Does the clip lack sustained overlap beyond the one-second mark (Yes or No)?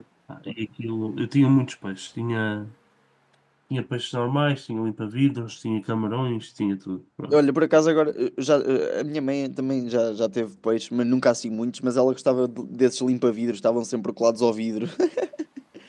Yes